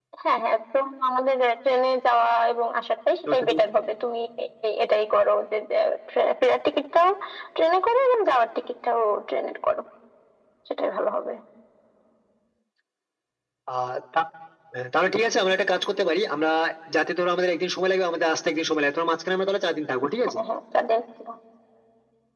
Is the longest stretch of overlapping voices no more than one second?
Yes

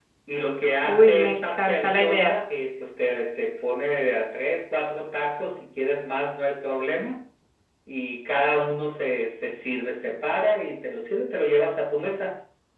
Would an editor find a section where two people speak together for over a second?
Yes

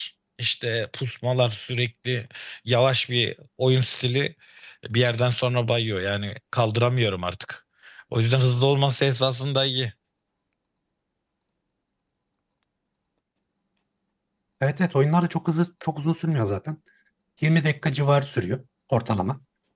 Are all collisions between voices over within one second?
Yes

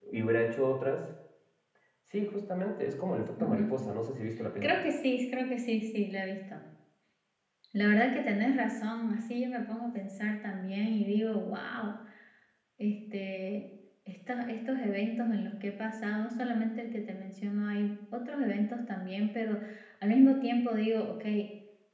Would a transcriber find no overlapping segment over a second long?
Yes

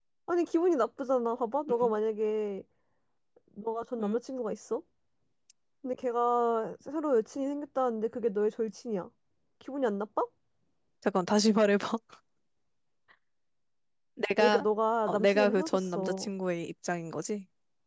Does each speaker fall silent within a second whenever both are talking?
No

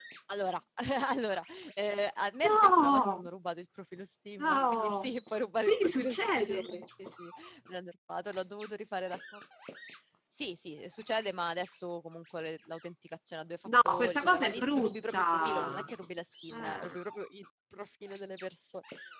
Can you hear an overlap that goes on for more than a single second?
Yes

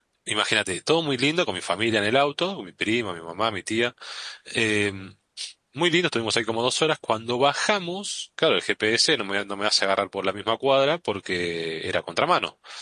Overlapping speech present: No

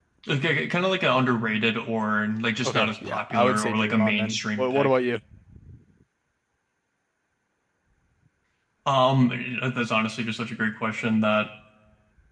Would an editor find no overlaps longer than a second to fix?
No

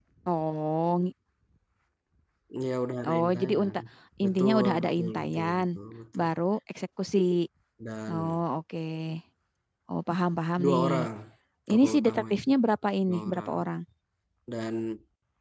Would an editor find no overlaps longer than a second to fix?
No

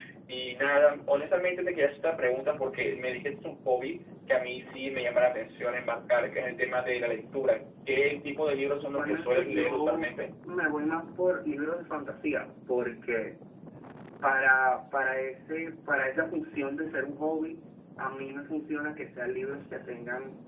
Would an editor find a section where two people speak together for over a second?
Yes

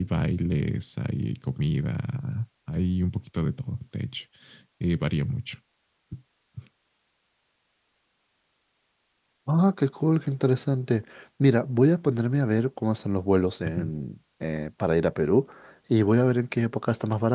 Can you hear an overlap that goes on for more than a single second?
No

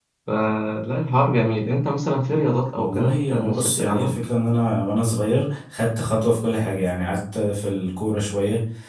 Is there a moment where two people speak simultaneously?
Yes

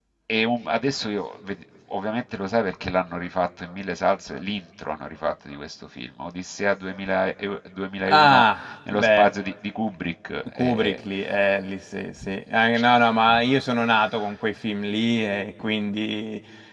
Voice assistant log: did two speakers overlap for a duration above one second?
No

